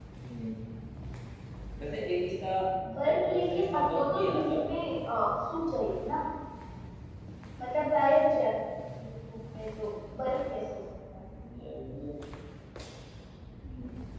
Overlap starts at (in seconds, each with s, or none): 3.1 s